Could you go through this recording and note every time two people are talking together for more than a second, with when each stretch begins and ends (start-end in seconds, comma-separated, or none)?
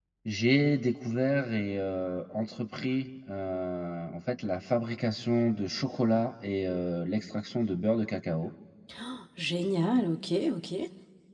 none